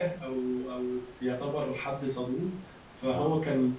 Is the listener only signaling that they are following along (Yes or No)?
Yes